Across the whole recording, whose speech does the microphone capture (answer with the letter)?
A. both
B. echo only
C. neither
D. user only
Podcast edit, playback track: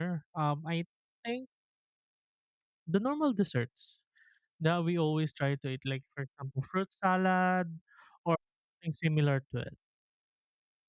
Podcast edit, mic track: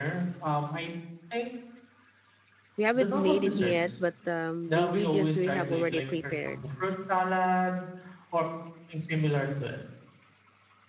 A